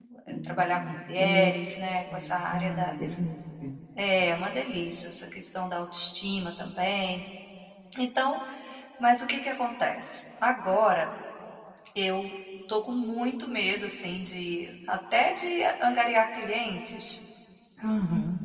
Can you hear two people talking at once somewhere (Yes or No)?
Yes